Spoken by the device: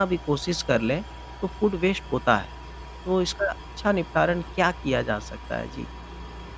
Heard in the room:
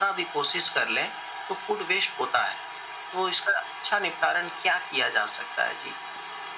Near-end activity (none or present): none